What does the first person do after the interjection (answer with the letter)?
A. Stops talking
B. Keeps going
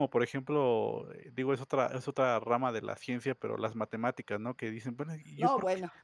B